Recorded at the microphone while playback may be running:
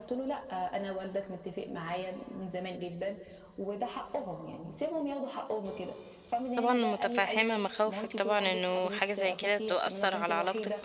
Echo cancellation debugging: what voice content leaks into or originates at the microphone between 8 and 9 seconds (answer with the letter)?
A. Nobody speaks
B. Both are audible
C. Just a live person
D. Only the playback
B